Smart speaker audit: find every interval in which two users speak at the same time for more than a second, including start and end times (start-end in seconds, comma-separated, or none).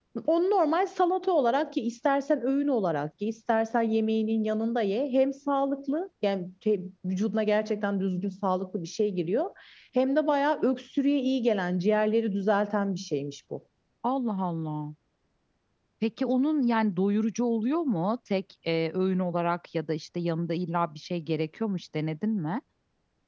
none